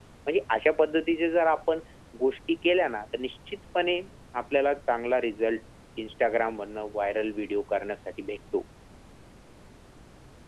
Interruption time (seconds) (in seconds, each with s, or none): none